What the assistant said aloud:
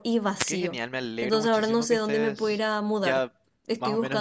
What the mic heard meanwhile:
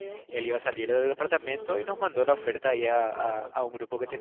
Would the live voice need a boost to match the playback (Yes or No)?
No